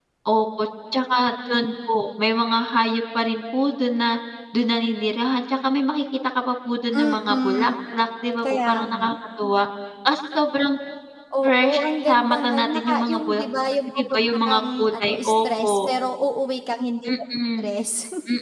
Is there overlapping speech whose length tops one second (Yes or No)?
Yes